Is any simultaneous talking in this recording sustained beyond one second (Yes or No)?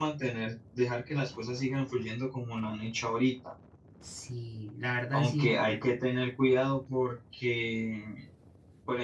No